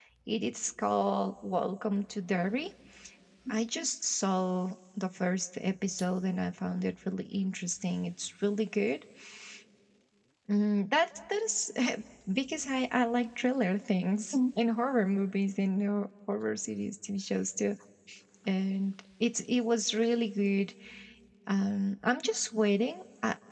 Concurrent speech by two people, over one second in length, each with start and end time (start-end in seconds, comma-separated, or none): none